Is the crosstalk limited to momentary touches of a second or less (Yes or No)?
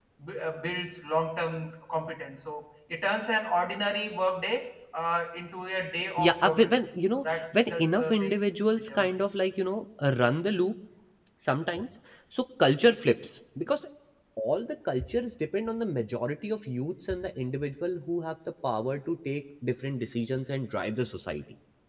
No